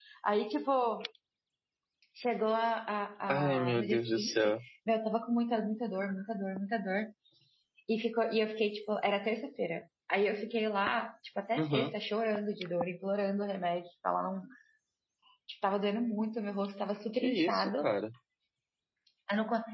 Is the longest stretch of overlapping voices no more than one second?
No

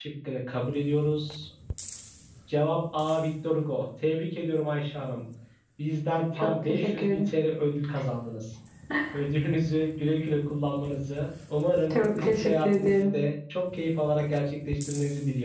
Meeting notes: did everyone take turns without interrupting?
No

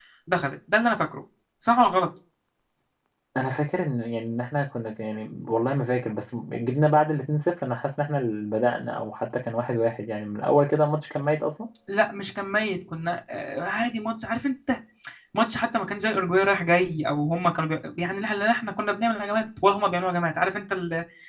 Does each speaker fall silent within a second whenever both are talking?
Yes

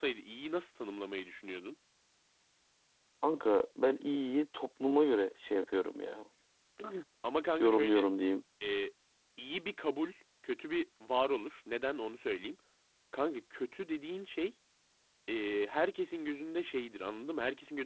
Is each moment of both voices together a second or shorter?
Yes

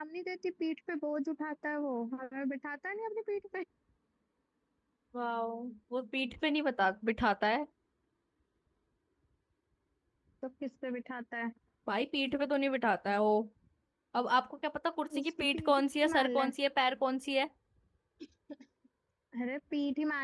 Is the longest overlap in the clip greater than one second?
Yes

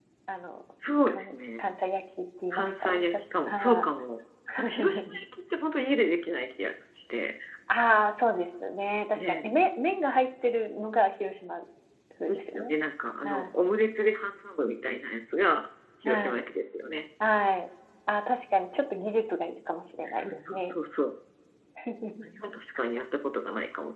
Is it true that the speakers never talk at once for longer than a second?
No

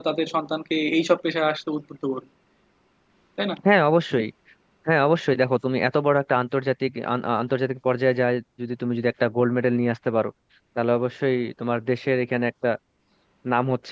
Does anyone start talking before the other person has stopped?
No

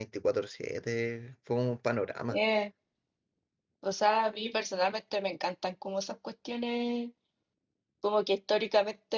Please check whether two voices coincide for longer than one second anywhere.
No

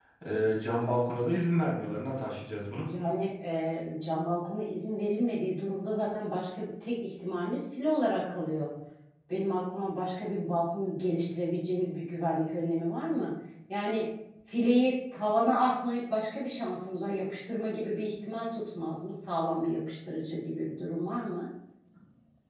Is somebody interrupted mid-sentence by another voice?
No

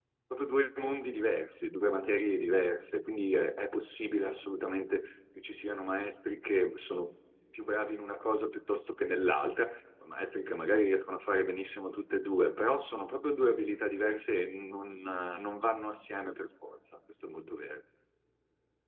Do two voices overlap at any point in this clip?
No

